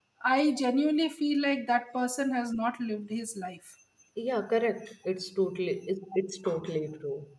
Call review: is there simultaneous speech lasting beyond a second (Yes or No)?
No